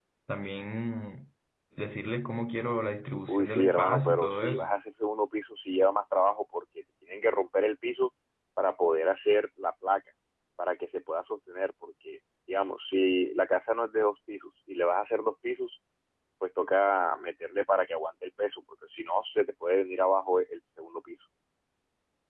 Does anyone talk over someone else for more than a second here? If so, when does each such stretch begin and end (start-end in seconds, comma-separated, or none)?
3.3-4.7